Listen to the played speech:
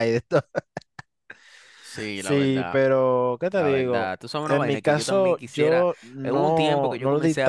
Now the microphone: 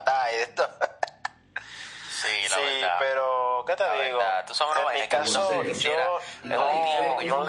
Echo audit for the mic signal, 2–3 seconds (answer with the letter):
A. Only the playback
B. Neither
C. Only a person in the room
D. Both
A